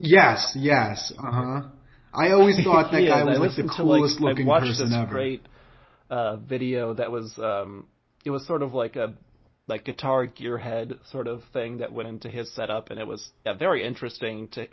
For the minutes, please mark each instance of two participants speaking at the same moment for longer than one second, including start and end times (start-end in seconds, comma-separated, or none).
2.6-5.3